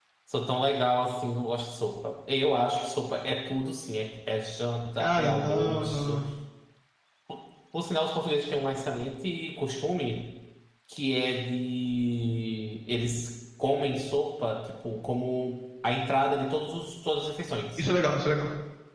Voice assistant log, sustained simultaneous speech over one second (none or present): present